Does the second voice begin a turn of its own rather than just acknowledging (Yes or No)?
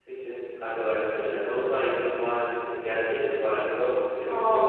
Yes